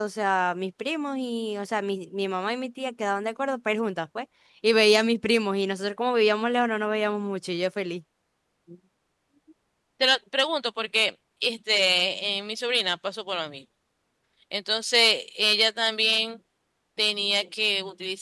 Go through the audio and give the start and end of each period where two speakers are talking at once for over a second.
none

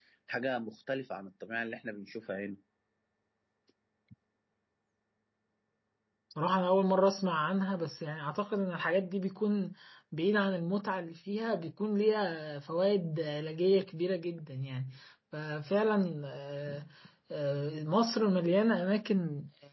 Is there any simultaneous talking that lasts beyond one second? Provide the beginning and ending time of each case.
none

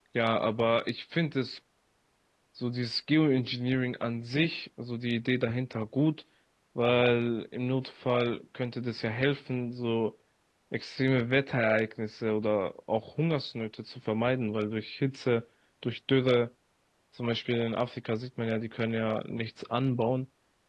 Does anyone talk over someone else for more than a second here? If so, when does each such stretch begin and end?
none

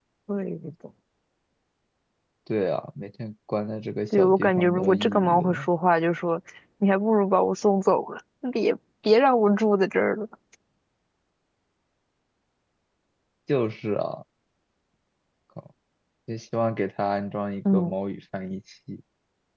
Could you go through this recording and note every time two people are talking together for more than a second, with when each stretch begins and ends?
4.1-5.7

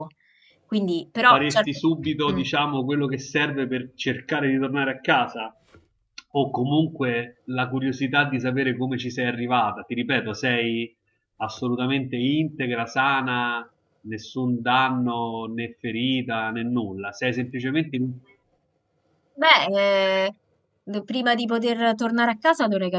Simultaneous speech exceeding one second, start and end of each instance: none

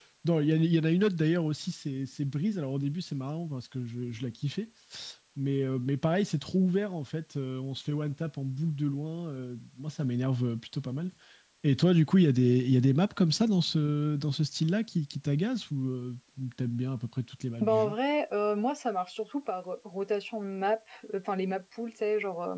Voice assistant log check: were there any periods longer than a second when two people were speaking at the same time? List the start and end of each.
none

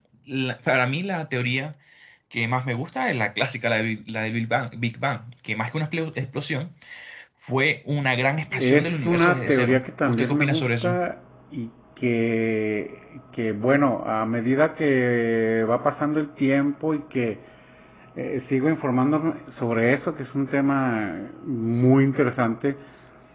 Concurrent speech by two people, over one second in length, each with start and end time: 8.6-11.0

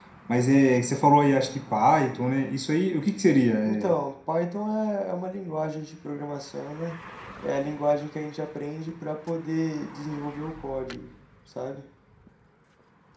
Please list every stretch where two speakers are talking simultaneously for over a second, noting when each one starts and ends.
none

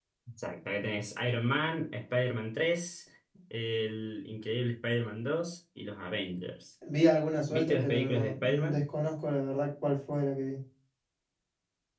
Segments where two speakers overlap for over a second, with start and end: 7.5-8.8

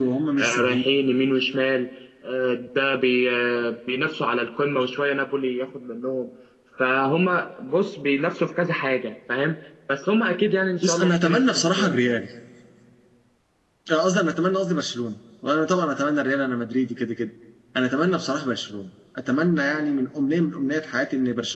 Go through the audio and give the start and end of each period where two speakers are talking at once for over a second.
10.8-12.2

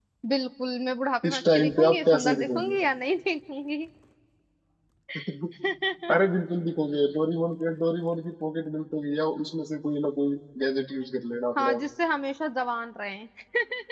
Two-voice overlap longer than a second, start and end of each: 1.2-2.8

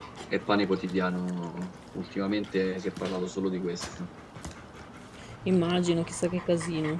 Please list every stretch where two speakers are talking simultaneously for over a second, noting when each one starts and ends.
none

